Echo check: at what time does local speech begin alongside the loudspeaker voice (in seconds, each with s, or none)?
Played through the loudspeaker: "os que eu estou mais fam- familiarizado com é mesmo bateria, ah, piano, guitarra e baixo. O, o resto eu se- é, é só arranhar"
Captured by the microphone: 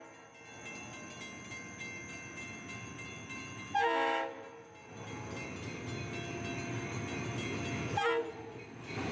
none